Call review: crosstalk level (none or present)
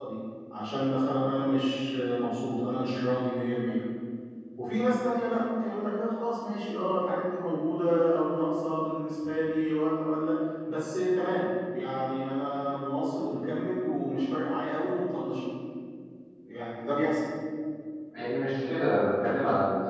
none